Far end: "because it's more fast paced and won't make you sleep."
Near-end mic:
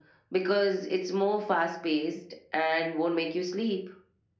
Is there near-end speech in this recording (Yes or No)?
No